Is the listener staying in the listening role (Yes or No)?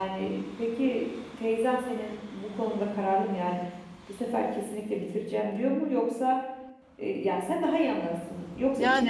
Yes